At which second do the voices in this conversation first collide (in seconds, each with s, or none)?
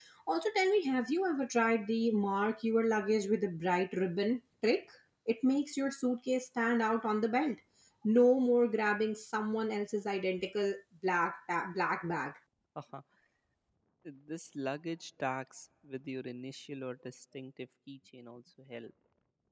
none